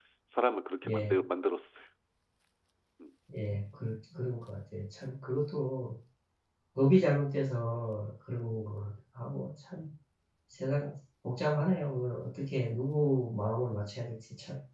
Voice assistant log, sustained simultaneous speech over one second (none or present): none